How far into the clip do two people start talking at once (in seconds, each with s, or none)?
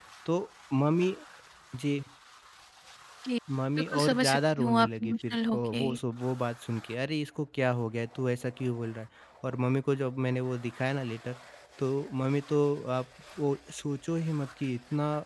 3.8 s